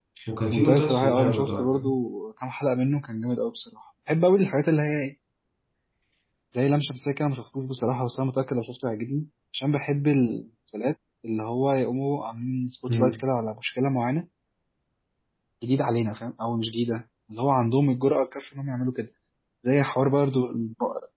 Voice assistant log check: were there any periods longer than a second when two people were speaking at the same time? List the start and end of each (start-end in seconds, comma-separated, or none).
0.5-1.9